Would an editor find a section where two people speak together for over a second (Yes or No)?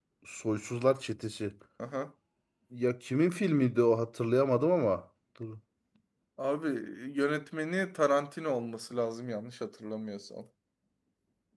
No